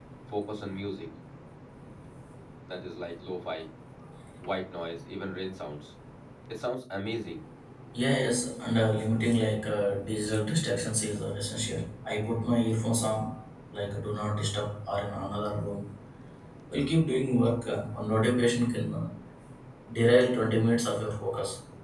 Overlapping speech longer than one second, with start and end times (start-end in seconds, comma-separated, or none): none